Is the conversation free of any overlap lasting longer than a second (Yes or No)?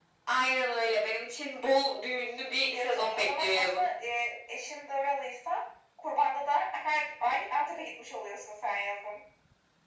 No